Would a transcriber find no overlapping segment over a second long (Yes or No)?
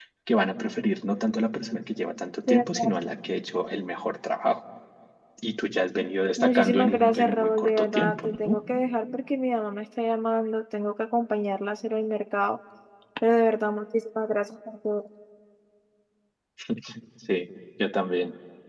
No